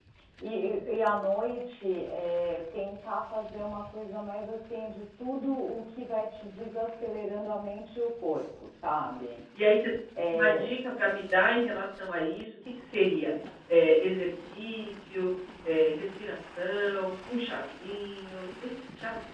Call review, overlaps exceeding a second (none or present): none